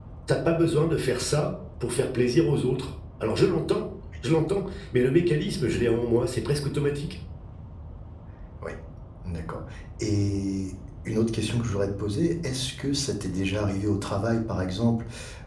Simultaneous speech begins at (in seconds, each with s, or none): none